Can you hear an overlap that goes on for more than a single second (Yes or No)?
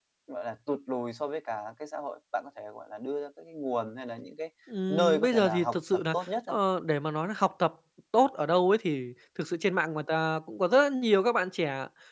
Yes